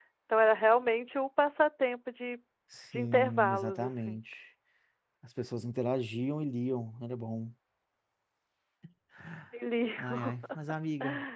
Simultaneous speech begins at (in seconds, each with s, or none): 2.9 s